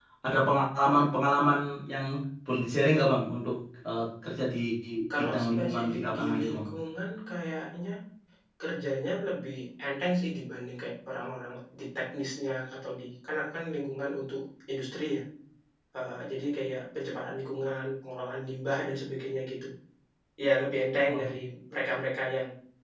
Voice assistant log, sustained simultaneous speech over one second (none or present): present